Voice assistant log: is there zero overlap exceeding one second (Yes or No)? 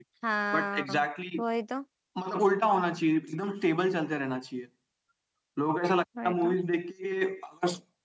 Yes